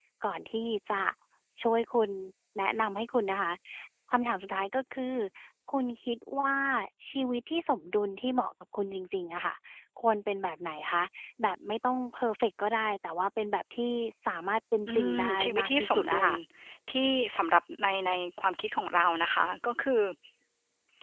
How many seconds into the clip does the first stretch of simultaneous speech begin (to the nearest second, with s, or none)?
15 s